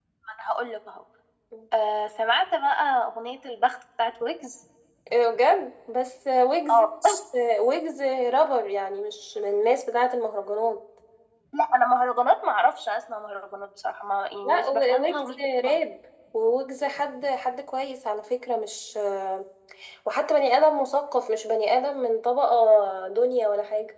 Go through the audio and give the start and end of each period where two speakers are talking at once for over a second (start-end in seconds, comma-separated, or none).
14.4-15.8